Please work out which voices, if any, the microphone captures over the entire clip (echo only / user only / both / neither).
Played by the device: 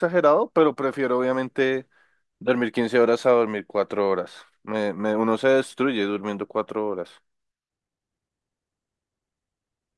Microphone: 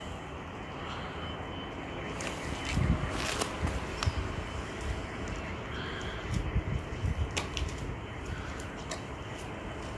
neither